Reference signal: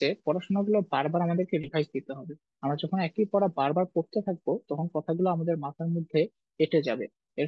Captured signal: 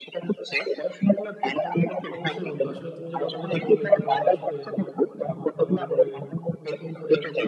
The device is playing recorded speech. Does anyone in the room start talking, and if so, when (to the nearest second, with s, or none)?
2 s